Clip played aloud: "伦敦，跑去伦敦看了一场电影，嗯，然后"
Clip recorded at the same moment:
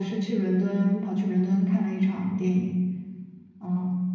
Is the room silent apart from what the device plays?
Yes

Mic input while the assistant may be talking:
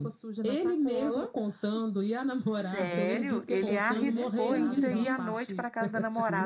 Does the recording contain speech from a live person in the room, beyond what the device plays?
Yes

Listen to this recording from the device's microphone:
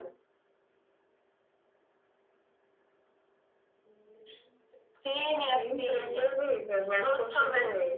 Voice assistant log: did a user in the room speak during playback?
No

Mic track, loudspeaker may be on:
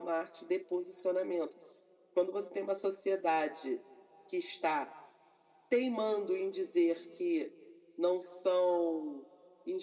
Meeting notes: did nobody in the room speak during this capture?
Yes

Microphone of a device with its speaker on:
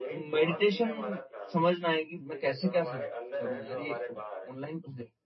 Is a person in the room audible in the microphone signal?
Yes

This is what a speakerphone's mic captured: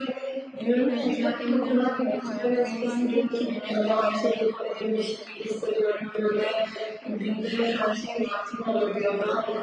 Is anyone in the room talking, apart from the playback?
Yes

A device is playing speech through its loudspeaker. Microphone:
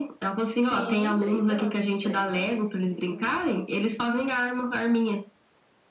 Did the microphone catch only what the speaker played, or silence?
No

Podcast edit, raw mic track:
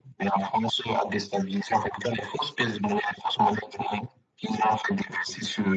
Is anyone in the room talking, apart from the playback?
No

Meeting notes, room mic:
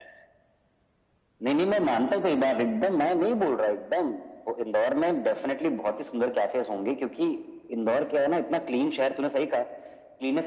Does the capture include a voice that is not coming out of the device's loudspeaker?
No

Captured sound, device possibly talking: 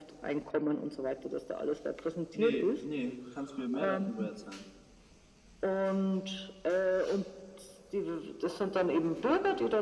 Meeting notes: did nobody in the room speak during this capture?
No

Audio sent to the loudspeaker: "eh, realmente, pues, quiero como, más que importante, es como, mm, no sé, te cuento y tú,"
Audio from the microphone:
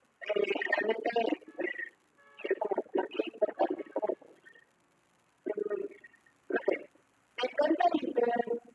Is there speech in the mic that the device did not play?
No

